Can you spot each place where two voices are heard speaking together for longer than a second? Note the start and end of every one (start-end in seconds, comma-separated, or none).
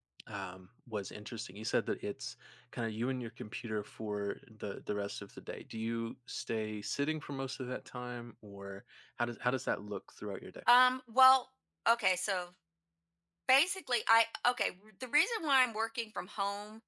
none